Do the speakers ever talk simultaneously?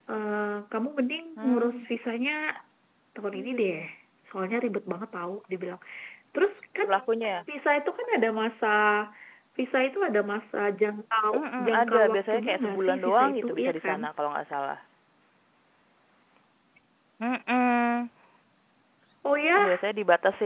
Yes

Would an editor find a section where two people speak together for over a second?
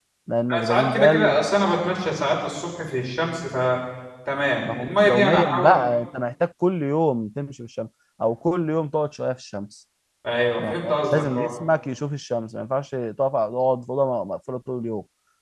Yes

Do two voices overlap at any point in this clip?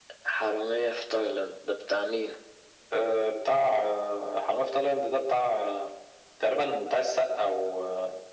No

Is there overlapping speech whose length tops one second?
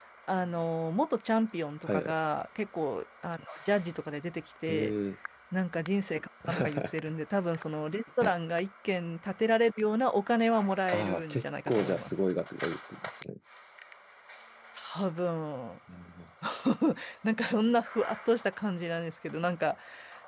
Yes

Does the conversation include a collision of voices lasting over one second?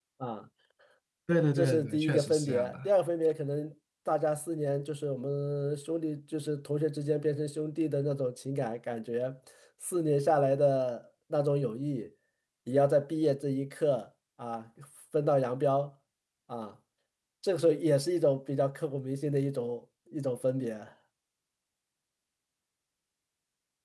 Yes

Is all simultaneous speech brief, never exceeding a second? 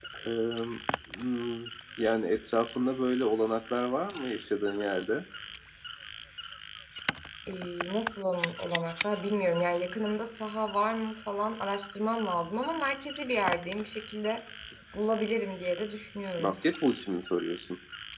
Yes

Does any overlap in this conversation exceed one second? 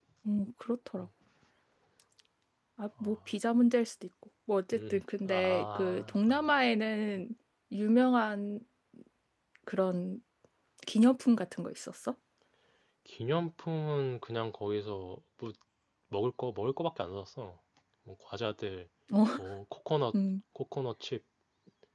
Yes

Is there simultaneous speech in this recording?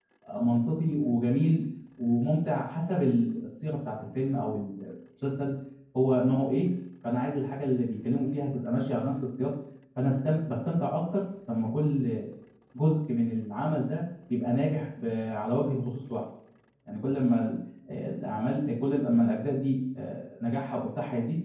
No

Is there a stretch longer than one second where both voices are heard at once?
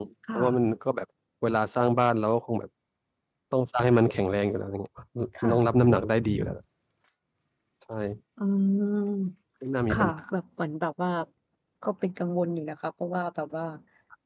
No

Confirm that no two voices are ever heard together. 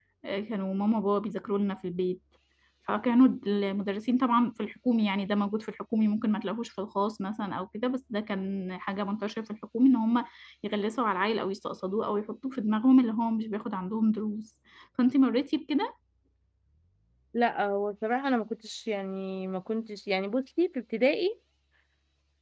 Yes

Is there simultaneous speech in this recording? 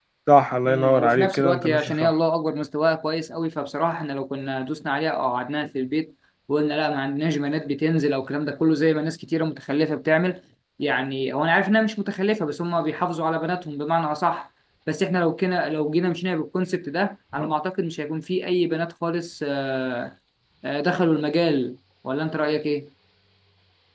Yes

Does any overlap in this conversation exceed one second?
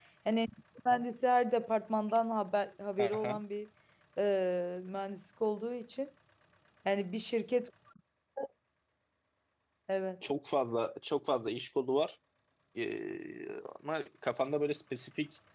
No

